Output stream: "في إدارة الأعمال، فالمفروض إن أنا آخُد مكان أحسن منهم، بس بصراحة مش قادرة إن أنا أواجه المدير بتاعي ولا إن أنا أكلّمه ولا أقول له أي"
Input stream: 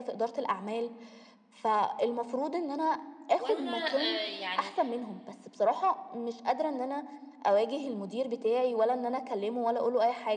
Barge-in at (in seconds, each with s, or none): 3.4 s